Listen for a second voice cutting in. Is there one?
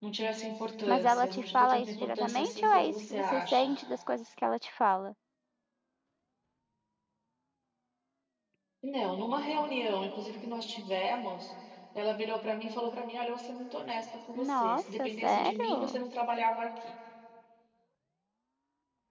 Yes, from 0.9 s

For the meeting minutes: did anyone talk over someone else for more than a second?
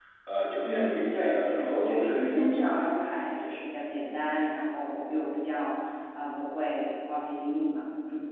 Yes, from 0.6 s

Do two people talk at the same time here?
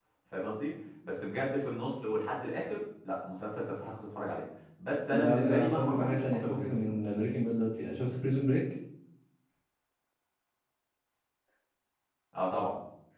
Yes, from 5.1 s

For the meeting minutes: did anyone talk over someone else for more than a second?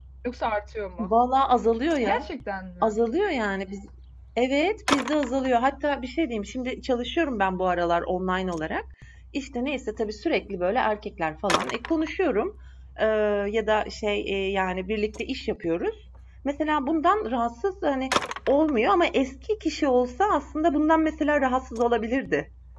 No

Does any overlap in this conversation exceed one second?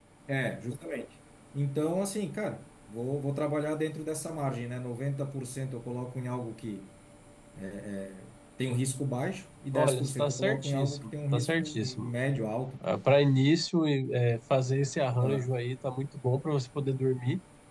Yes, from 9.7 s

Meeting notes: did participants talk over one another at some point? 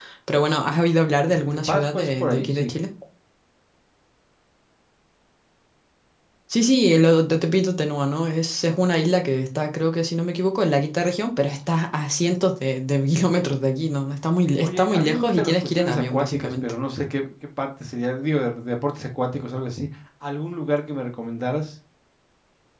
Yes, from 1.2 s

